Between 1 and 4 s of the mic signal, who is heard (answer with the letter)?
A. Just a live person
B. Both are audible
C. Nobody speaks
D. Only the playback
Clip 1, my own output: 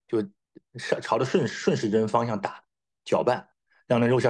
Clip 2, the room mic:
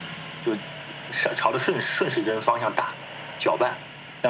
D